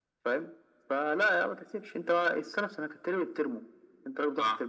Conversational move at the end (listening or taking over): listening